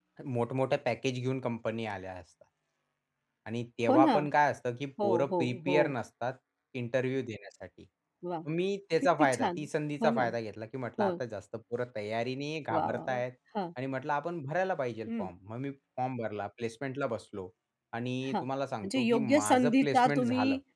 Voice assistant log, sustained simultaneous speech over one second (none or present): present